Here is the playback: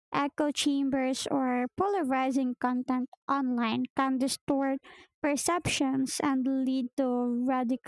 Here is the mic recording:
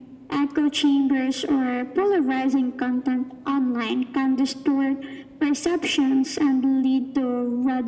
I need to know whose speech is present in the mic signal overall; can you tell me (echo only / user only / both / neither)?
echo only